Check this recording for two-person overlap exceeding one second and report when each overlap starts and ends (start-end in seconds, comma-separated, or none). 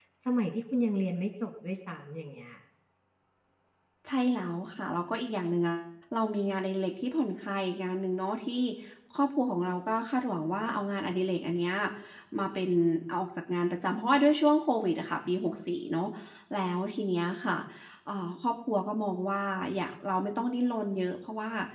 none